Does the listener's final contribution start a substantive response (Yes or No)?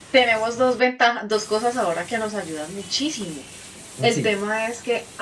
No